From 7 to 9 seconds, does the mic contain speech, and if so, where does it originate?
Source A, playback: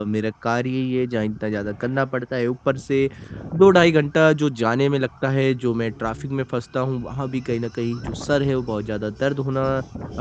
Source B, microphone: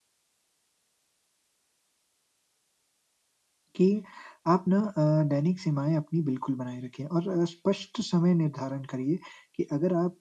user only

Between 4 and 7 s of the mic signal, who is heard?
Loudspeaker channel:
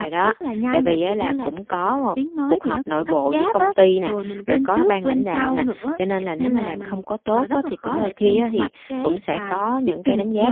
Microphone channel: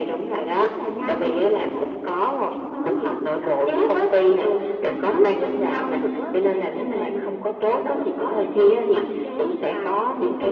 echo only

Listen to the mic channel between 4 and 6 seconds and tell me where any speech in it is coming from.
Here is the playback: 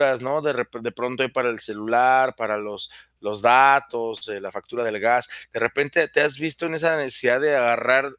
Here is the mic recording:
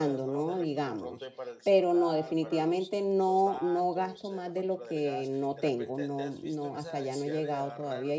both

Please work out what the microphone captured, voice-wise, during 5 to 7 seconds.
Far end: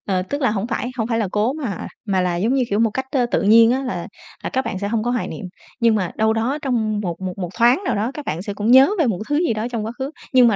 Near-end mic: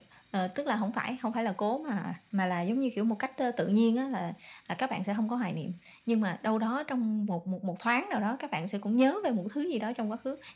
echo only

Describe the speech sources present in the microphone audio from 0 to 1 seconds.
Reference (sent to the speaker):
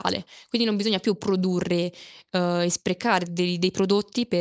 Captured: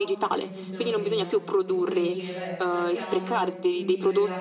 both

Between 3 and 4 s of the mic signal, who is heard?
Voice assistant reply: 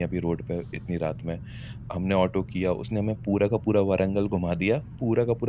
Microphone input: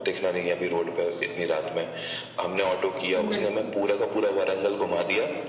both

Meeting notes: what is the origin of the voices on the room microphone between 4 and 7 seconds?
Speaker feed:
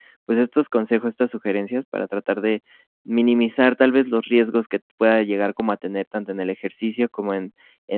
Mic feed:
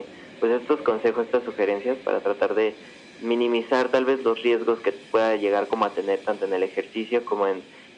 echo only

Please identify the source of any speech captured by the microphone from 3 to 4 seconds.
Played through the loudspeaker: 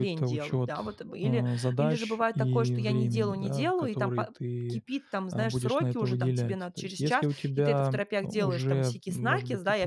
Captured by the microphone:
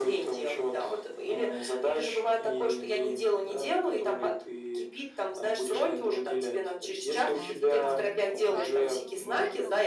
echo only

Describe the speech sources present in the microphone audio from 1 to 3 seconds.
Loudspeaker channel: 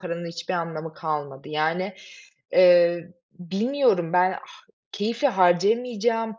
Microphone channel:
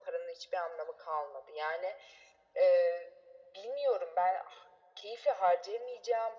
echo only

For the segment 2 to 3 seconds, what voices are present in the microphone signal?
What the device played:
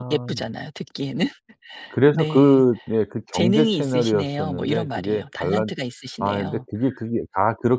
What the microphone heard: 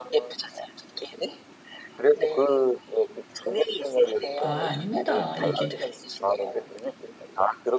echo only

